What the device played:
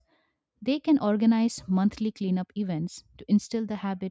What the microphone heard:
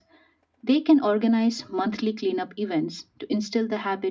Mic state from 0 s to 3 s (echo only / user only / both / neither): echo only